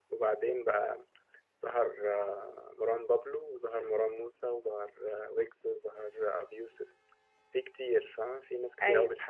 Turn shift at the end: No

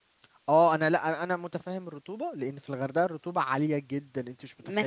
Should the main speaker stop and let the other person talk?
Yes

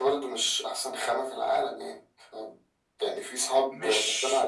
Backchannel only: Yes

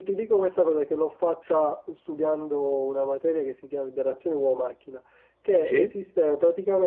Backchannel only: Yes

